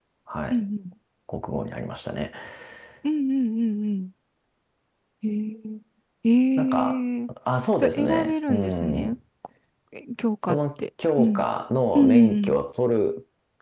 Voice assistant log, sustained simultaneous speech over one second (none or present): present